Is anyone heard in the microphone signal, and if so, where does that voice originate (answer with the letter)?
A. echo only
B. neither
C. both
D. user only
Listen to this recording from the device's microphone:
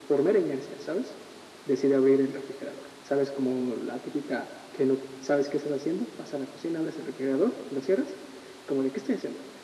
A